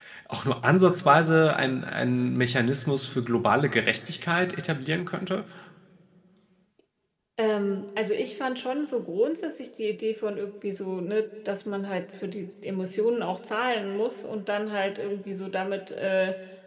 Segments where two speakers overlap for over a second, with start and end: none

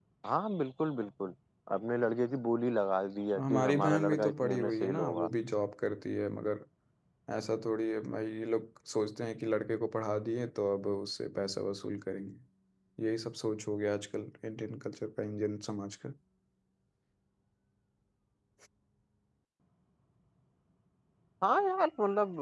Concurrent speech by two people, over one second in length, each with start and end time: 3.4-5.3

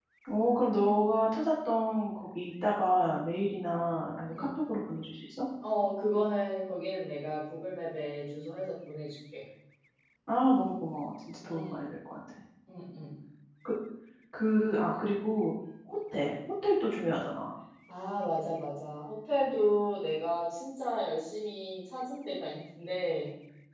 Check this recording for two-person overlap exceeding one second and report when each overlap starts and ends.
none

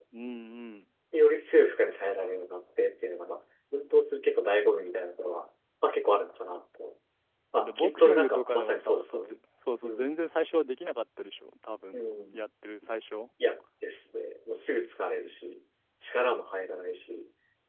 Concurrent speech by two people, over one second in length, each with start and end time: 7.6-9.2

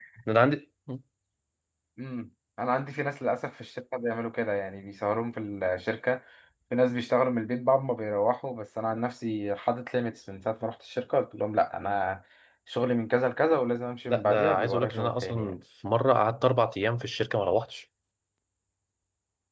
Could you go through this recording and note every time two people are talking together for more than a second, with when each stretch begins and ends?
14.1-15.5

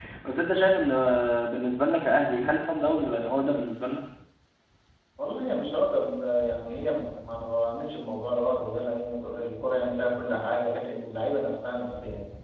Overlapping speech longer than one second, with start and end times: none

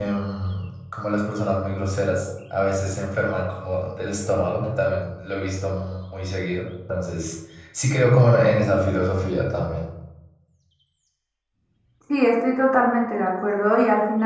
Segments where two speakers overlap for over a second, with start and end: none

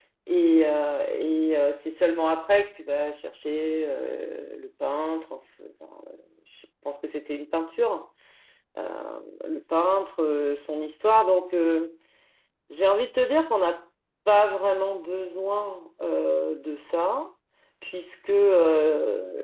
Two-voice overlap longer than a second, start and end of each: none

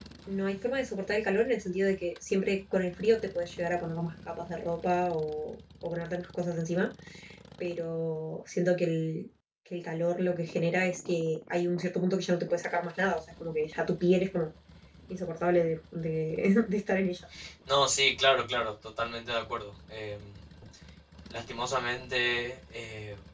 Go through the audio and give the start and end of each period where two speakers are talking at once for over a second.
none

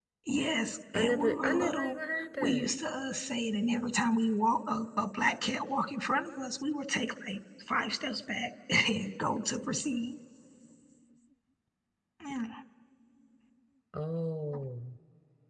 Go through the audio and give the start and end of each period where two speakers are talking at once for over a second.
0.9-2.7

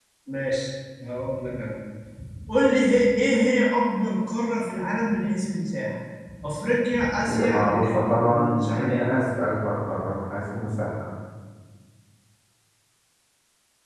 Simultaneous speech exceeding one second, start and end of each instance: 7.2-9.1

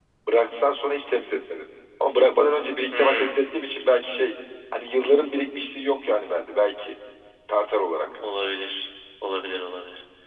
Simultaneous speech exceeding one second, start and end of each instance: none

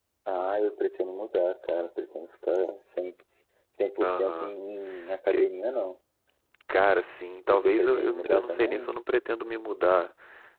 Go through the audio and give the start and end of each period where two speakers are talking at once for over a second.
7.5-9.0

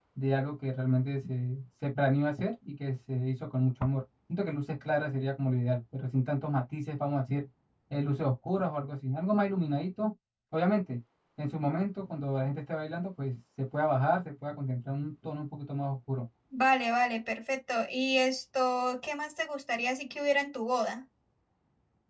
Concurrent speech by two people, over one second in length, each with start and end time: none

